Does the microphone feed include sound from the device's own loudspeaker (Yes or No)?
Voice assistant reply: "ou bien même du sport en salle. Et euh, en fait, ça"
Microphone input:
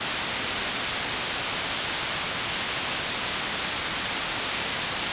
No